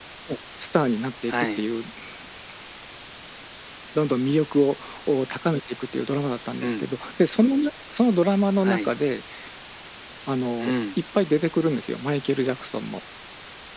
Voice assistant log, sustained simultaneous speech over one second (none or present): none